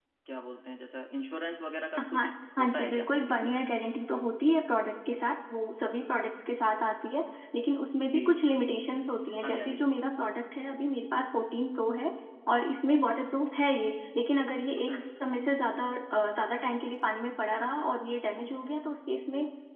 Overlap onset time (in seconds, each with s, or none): 2.1 s